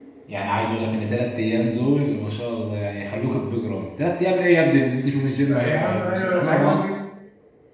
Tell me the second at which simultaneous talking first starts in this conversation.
5.5 s

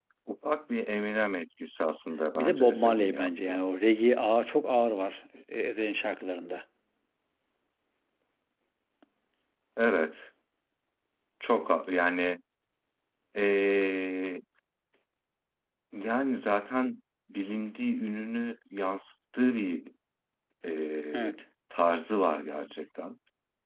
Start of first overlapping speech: 2.4 s

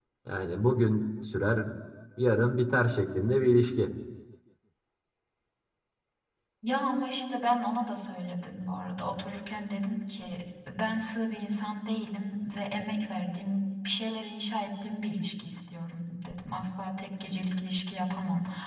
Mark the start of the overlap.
none

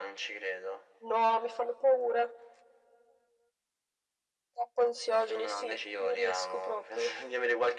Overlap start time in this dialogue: 5.3 s

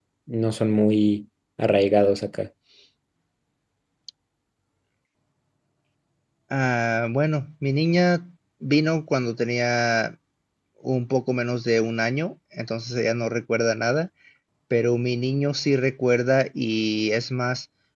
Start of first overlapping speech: none

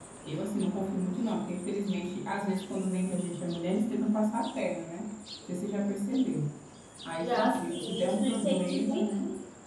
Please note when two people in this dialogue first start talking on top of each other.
7.2 s

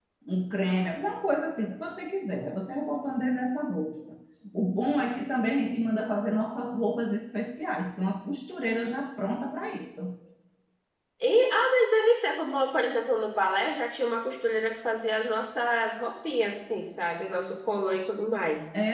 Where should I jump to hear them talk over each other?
none

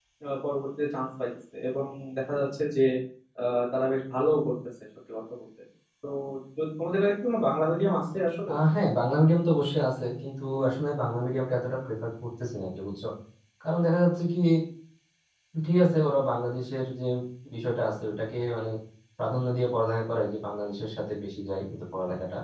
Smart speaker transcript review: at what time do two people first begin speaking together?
none

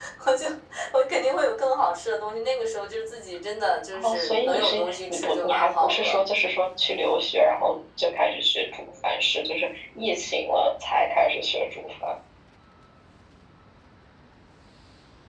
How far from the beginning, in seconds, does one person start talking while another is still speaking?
3.9 s

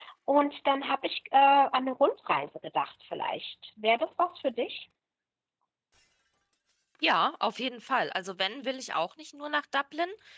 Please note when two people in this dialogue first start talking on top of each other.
none

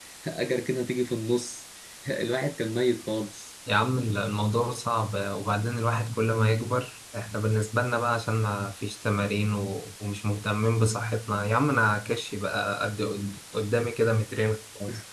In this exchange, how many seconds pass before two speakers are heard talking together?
none

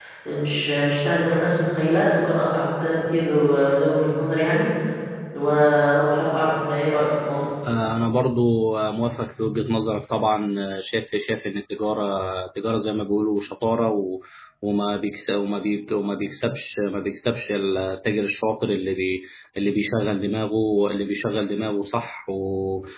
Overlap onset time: none

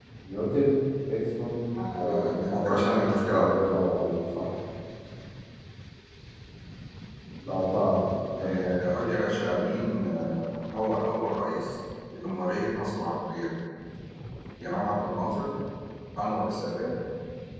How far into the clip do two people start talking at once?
1.9 s

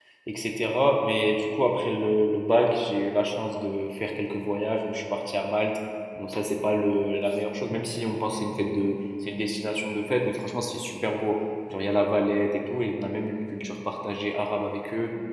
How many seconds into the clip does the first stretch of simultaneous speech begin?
none

